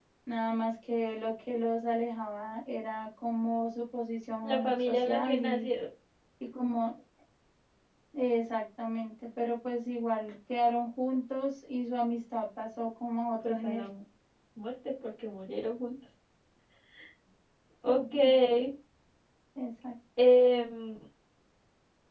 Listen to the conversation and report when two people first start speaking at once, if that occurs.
4 s

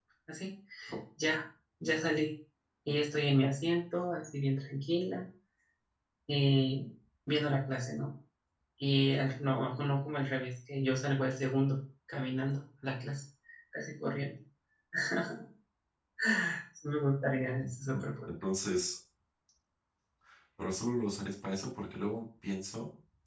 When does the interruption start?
none

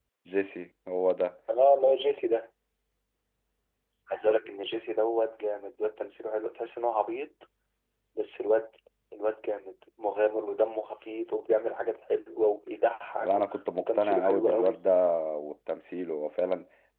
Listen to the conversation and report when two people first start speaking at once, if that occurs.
13 s

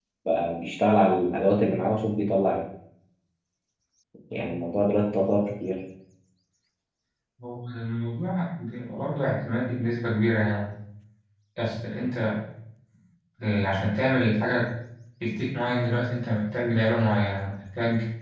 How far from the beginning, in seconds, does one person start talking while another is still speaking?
none

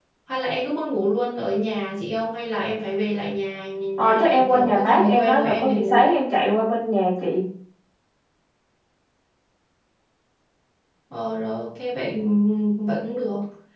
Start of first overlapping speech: 4 s

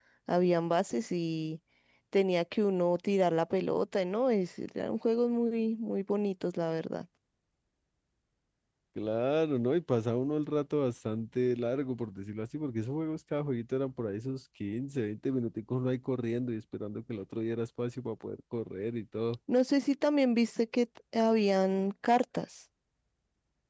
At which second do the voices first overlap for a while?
none

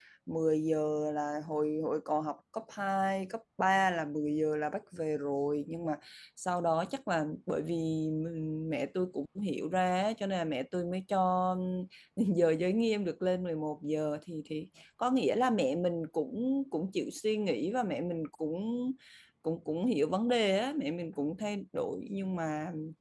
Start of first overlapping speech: none

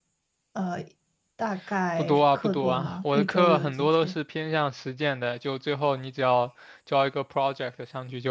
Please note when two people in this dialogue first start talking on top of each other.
2 s

